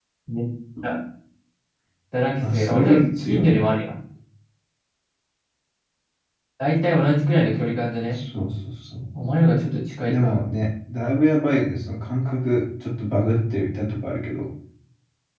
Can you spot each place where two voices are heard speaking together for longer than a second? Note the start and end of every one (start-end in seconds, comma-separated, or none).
2.4-3.6